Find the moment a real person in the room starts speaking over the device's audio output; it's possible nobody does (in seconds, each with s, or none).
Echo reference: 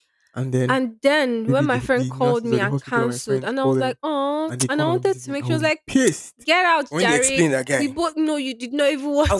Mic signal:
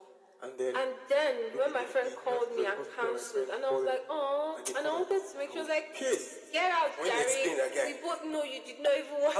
none